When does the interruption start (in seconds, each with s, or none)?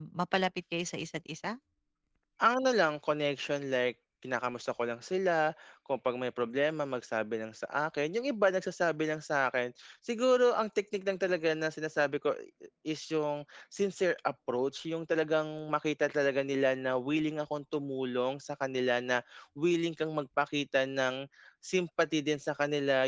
none